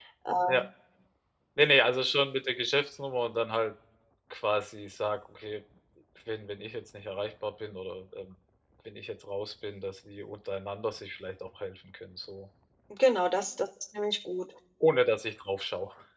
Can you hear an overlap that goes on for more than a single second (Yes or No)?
No